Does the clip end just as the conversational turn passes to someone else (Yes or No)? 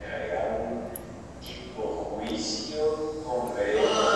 Yes